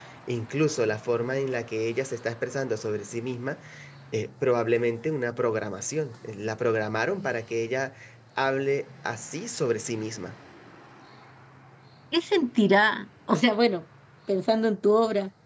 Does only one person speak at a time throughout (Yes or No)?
Yes